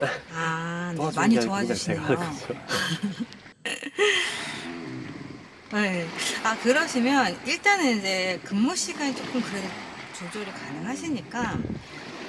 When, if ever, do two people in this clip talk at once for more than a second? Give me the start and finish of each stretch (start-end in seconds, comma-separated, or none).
1.0-2.4